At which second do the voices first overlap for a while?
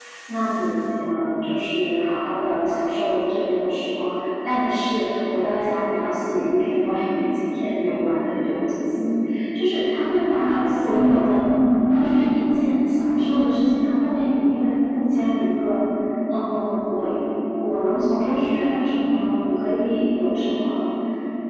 10.2 s

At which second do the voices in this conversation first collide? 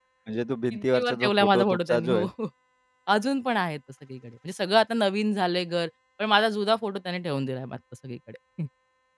0.7 s

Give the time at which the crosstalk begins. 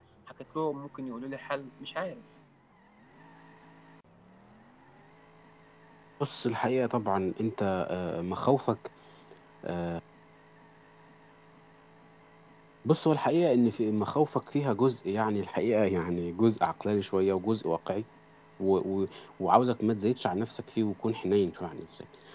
none

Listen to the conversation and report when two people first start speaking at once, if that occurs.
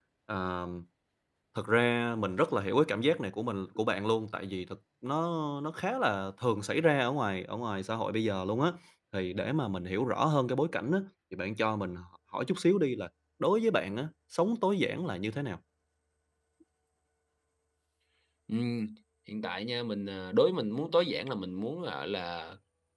none

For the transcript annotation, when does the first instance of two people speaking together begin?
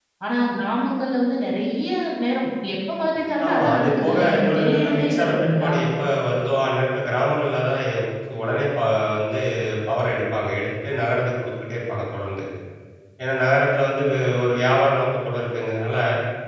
3.4 s

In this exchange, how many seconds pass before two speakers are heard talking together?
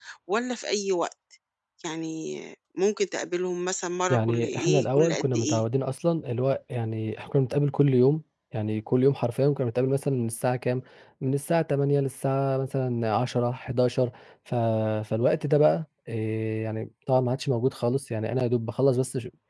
4.1 s

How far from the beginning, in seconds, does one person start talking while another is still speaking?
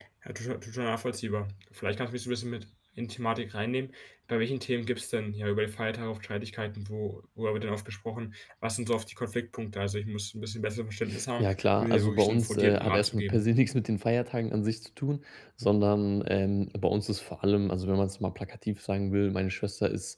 11.4 s

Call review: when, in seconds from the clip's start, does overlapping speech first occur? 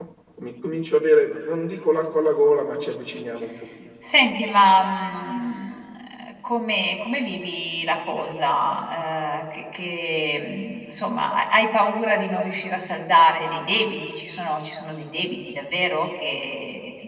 none

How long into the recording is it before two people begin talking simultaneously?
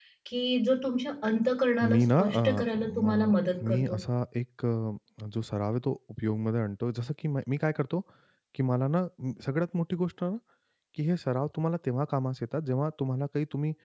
1.8 s

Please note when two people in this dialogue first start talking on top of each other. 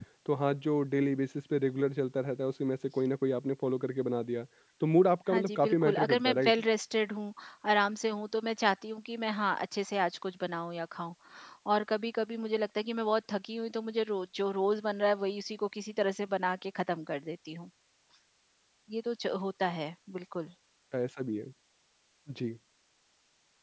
5.3 s

